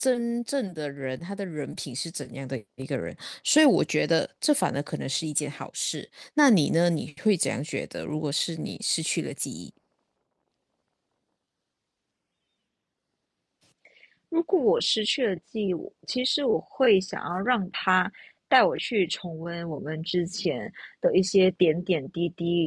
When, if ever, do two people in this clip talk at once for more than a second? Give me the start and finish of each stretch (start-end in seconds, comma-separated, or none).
none